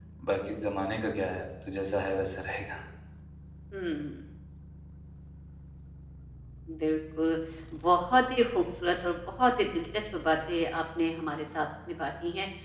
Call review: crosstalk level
none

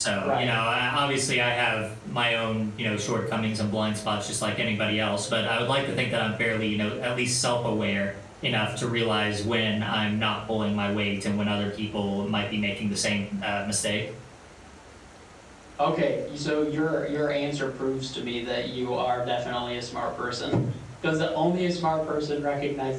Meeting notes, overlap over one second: none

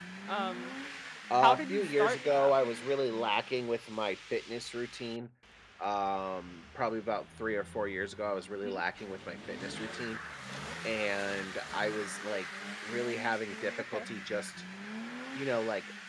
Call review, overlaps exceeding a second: present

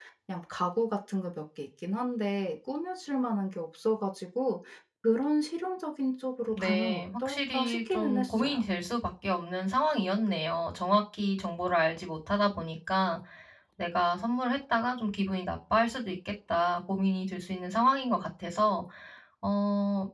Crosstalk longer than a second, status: present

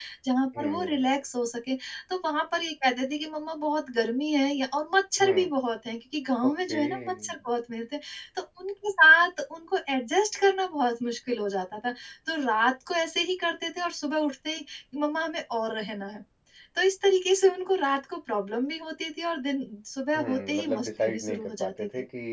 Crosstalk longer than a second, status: present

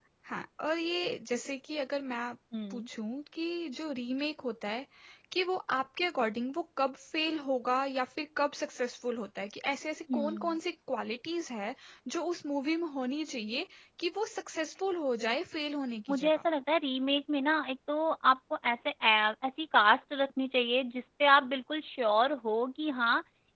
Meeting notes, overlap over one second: none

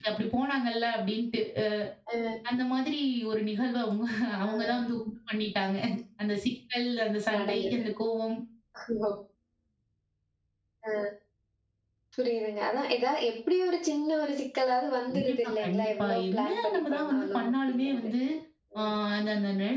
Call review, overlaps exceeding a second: present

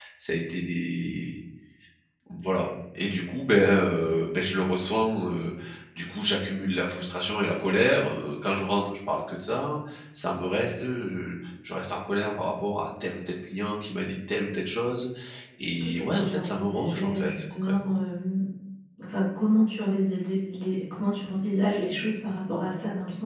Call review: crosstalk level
present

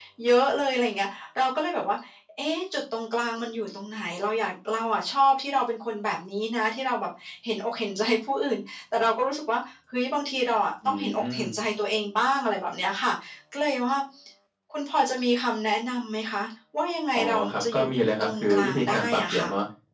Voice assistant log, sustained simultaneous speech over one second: present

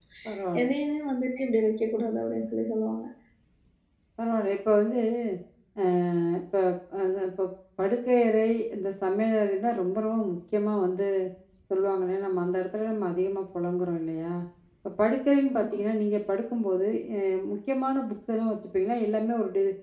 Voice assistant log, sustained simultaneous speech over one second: none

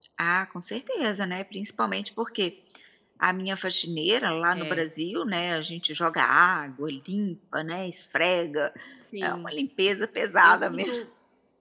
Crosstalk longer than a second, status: none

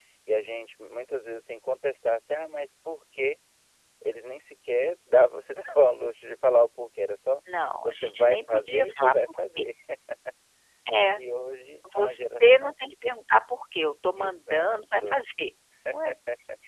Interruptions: present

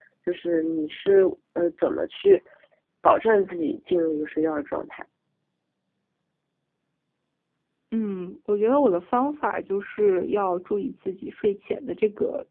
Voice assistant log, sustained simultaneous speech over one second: none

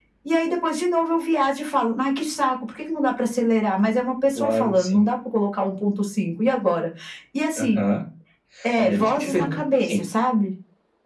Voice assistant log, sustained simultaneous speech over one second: present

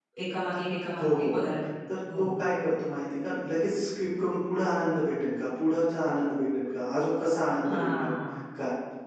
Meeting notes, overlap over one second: none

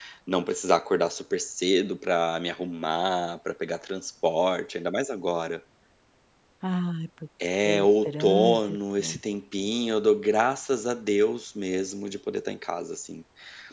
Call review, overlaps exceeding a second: present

